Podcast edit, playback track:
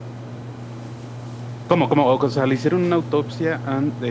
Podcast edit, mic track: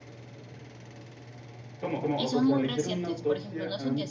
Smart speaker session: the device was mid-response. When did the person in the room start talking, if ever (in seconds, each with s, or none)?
2.1 s